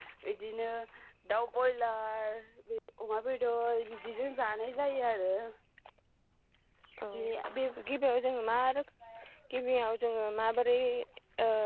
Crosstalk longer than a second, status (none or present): none